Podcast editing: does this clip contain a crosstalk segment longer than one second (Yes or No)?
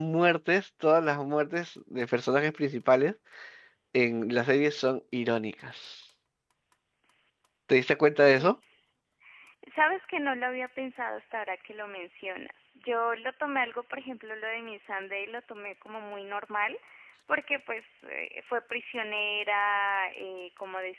No